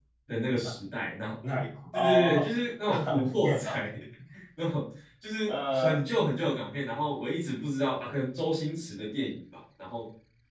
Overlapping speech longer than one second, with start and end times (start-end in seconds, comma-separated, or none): 1.9-3.8